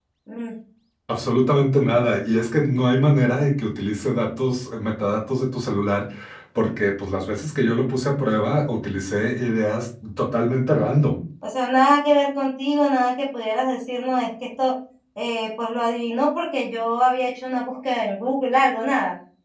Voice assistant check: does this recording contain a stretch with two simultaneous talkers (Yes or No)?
No